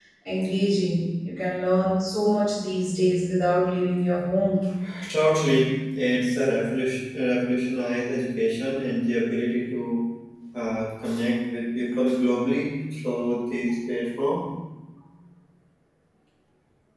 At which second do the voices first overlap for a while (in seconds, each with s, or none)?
none